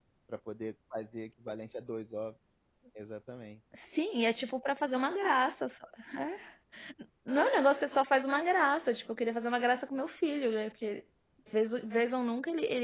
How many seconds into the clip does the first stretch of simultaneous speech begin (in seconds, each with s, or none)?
none